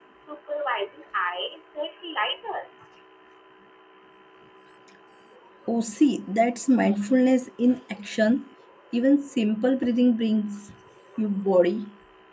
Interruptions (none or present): none